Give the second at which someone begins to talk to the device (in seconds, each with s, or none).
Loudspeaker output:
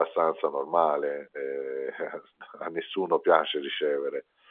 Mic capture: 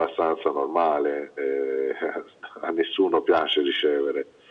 none